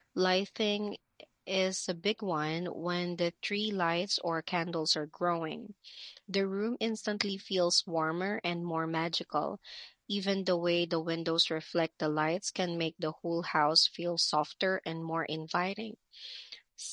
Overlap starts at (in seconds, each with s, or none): none